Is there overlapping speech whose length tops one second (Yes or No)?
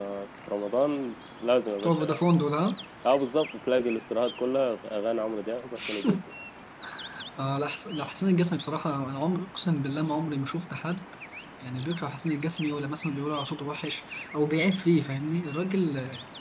No